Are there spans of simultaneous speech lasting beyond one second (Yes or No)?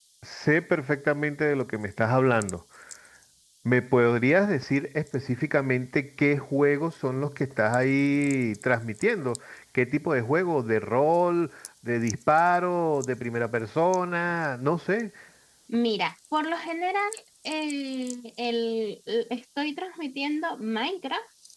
No